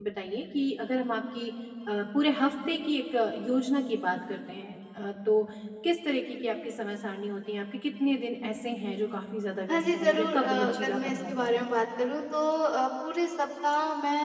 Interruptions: present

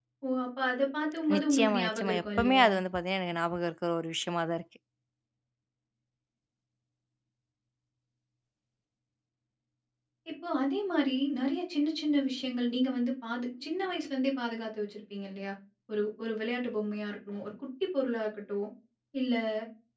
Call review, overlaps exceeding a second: present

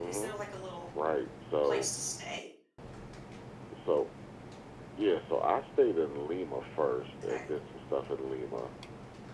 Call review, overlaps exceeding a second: none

